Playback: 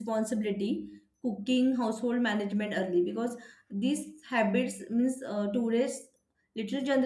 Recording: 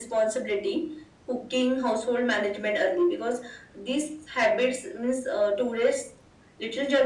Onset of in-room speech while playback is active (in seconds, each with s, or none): none